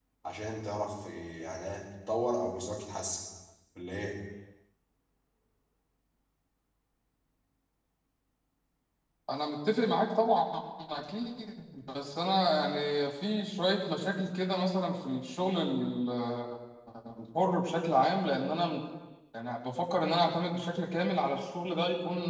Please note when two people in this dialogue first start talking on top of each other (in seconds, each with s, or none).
none